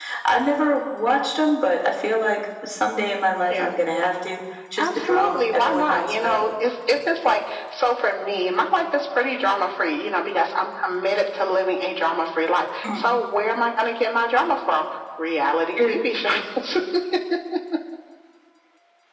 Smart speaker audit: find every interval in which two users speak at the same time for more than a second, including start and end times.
4.8-6.5

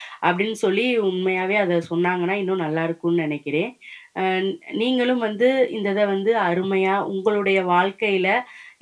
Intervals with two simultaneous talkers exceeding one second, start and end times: none

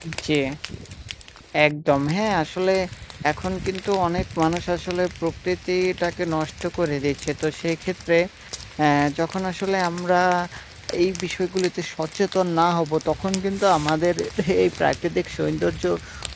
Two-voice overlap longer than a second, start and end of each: none

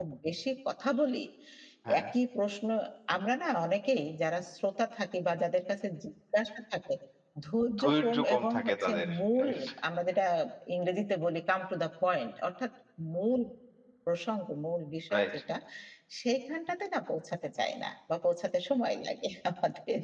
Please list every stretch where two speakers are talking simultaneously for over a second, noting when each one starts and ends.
7.8-9.5

